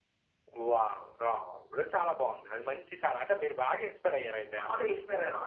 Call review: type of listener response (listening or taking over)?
taking over